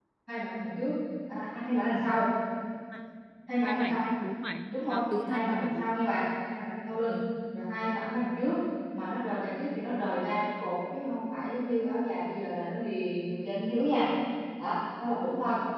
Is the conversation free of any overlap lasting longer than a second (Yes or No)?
No